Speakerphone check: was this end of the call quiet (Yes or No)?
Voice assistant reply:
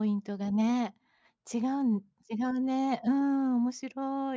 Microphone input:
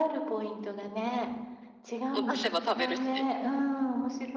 No